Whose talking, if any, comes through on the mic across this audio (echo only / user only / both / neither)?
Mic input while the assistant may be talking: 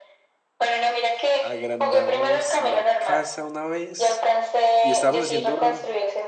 both